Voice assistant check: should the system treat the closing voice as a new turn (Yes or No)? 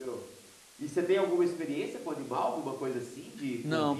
Yes